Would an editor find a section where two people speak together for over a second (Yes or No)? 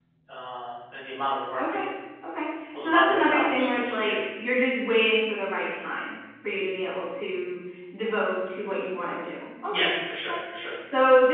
Yes